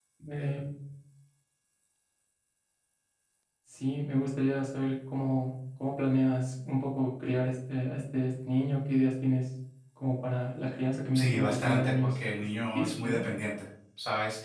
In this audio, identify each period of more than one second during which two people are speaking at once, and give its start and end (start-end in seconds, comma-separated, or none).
11.1-13.2